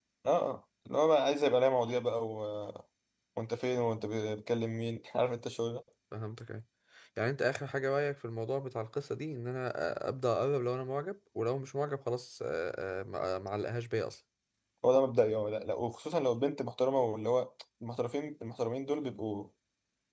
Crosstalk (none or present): none